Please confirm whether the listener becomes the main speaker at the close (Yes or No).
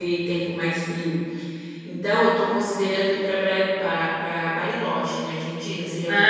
Yes